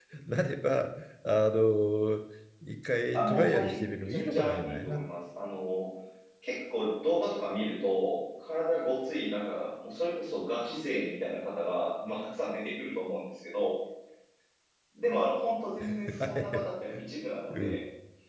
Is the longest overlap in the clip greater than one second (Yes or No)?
Yes